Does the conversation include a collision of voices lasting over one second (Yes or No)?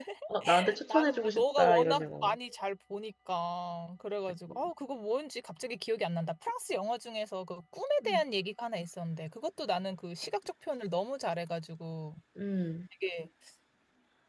Yes